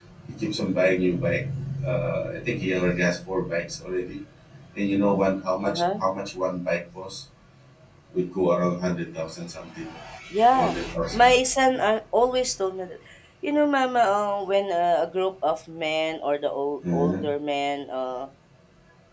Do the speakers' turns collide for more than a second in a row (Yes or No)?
No